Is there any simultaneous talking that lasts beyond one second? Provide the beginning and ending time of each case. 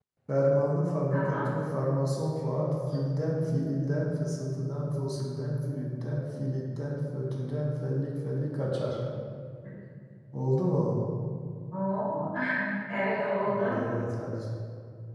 none

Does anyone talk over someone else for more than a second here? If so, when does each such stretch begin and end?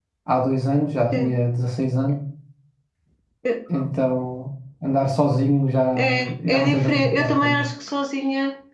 6.0-7.6

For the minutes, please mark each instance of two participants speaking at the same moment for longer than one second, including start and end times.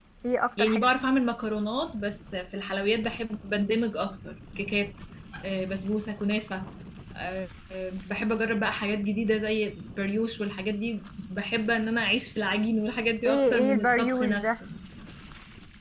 13.2-14.5

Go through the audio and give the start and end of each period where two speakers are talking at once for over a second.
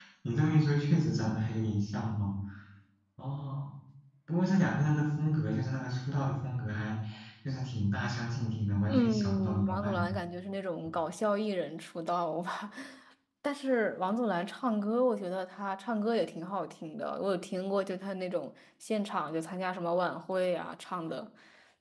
8.9-10.2

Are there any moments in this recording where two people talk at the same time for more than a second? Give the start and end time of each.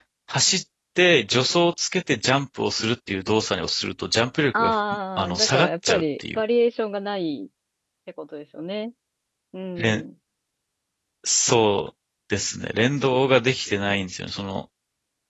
5.2-6.4

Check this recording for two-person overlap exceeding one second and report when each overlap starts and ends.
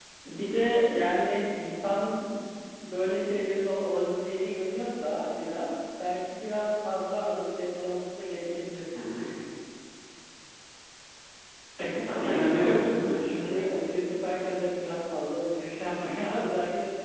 11.9-13.6

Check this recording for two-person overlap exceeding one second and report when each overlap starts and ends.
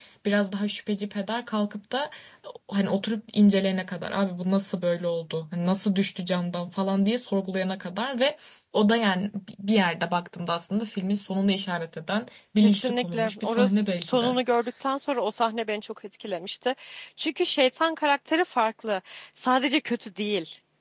12.6-14.3

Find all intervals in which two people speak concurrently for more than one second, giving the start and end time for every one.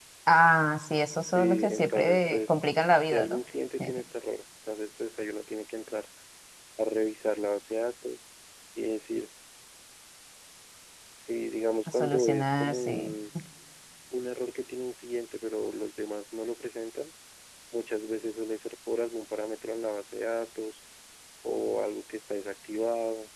1.3-2.6, 11.9-13.1

